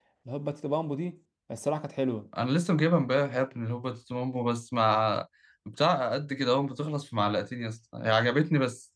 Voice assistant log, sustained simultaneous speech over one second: none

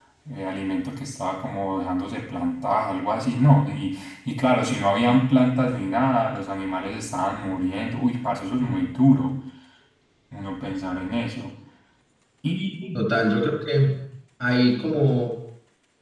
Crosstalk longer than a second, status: none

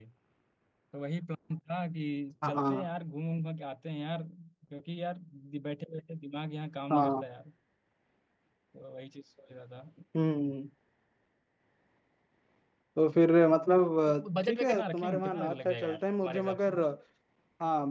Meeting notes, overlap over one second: present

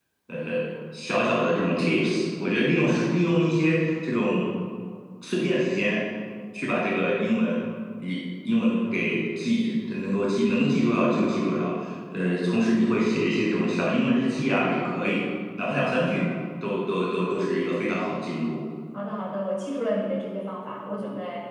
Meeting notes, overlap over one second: none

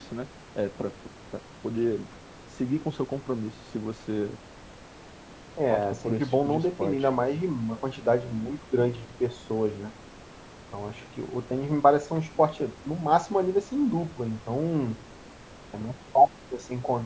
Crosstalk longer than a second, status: present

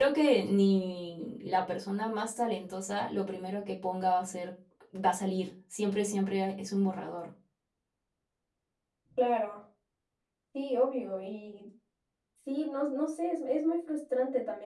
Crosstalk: none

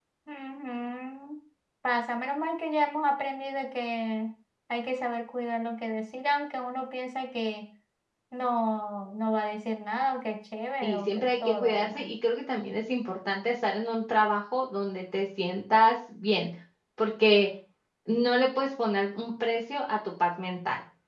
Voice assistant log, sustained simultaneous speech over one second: present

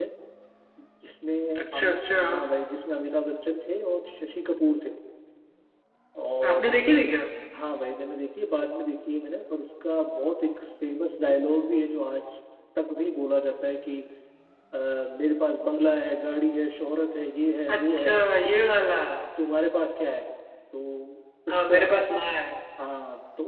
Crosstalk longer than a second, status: none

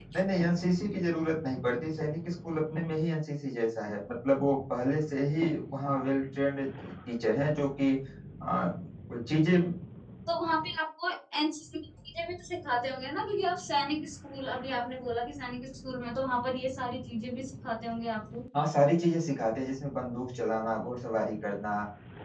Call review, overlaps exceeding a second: none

